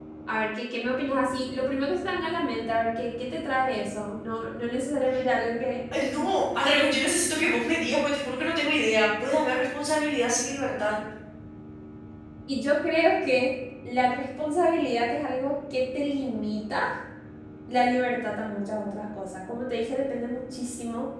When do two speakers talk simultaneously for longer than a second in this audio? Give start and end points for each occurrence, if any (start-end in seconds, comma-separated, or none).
none